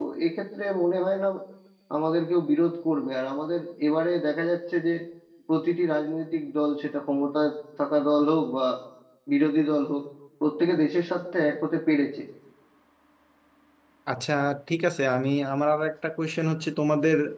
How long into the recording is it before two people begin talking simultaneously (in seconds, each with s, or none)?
none